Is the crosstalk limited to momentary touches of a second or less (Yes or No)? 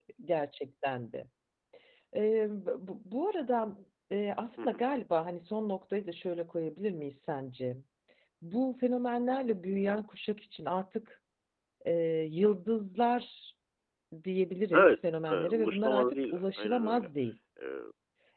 No